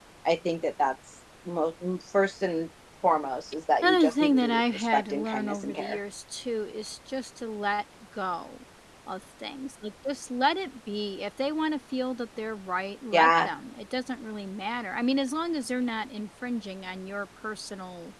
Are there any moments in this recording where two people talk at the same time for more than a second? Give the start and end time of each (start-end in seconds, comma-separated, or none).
3.8-6.0